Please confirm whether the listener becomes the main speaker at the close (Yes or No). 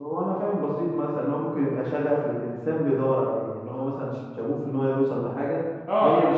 Yes